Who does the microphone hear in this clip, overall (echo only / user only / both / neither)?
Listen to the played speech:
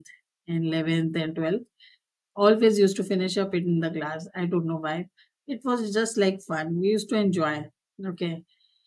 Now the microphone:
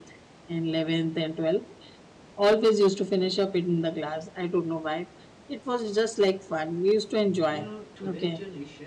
both